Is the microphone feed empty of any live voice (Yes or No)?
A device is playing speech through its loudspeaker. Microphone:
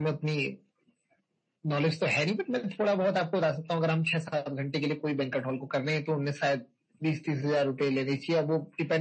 Yes